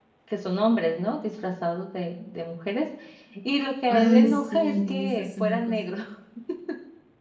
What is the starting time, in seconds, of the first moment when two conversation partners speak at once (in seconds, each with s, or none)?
3.9 s